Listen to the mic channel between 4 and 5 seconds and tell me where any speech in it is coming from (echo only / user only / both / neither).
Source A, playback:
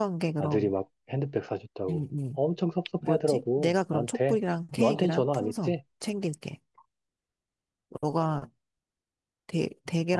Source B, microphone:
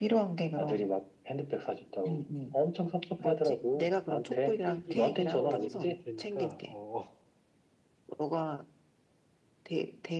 both